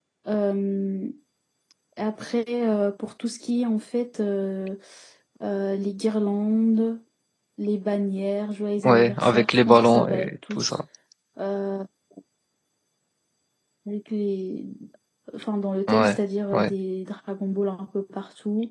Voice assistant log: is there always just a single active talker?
No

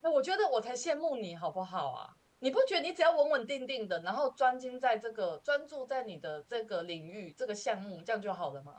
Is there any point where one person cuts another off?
No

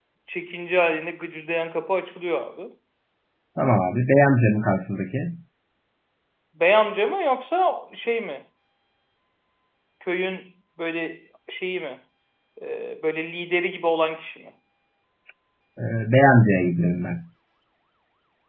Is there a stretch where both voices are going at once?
No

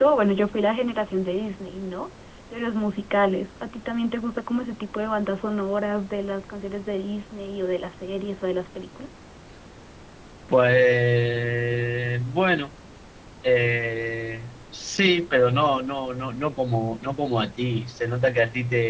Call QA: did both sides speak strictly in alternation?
Yes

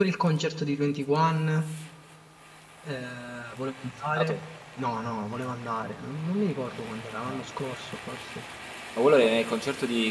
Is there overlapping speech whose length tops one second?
No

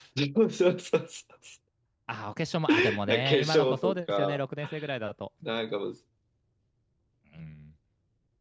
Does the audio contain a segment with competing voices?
Yes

